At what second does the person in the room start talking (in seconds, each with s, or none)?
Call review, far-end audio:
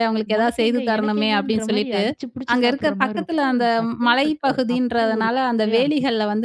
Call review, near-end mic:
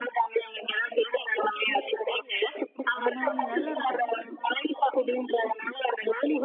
3.0 s